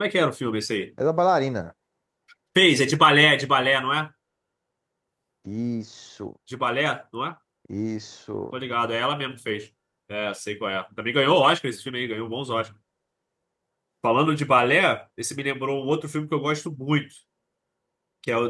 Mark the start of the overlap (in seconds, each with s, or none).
none